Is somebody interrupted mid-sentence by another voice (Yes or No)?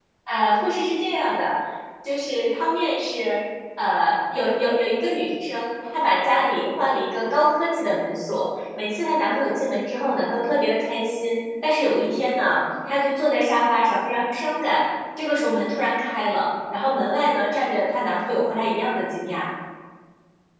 No